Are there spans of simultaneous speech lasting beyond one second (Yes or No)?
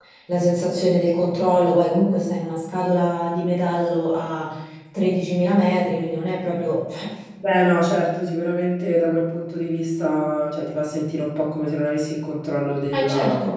No